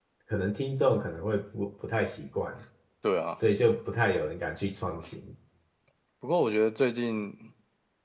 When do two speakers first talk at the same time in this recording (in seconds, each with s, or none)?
none